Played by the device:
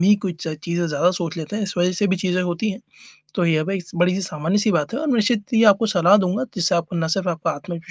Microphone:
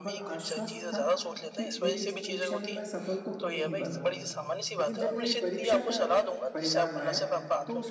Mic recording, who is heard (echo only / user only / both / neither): both